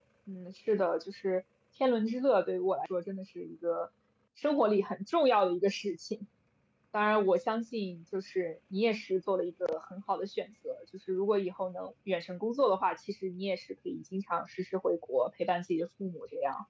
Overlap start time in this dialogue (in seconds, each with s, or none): none